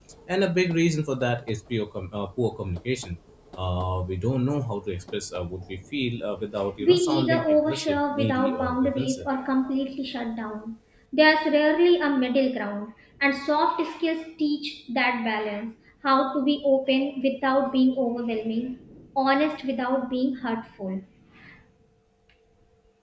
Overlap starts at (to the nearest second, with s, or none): 7 s